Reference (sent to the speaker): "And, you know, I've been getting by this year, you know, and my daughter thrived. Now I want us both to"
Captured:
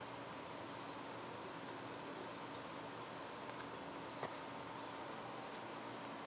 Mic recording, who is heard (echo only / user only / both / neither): neither